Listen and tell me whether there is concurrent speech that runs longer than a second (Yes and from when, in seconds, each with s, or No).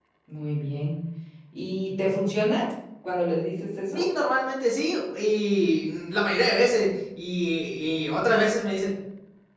No